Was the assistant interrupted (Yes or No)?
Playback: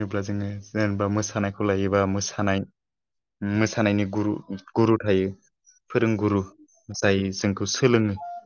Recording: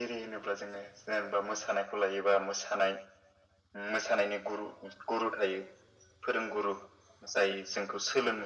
No